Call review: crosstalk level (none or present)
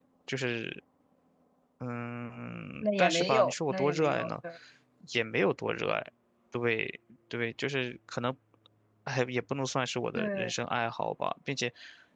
present